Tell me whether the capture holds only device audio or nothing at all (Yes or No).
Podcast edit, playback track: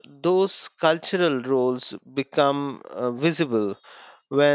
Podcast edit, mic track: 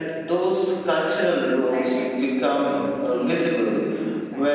No